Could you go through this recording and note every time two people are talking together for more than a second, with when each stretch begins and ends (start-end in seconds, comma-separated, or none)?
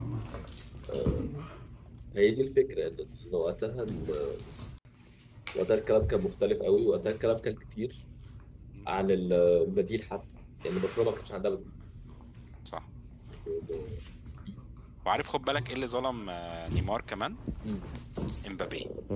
none